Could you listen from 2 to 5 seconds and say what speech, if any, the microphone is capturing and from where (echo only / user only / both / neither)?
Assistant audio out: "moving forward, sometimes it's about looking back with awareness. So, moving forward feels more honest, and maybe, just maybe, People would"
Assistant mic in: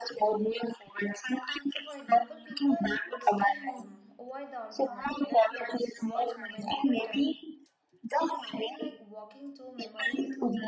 both